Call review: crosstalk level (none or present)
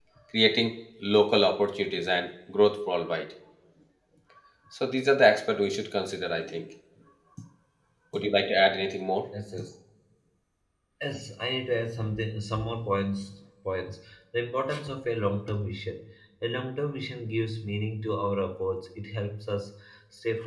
none